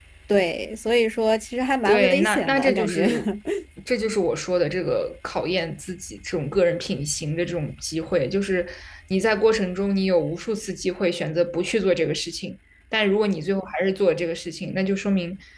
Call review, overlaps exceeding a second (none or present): present